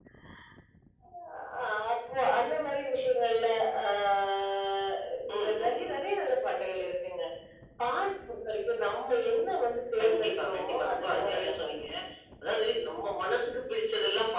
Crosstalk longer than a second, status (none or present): present